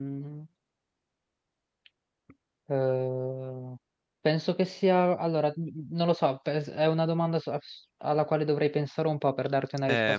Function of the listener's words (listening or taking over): listening